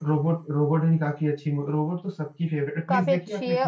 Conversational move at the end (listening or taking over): taking over